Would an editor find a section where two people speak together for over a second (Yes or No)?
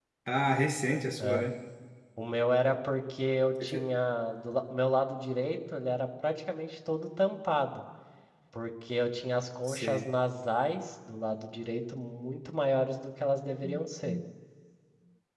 No